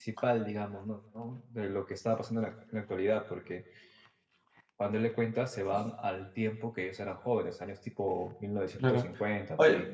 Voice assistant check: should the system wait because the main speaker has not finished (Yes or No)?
No